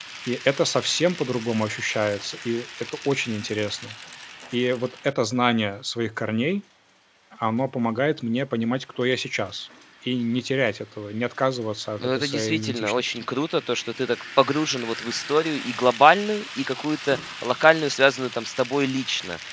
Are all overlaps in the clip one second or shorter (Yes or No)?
No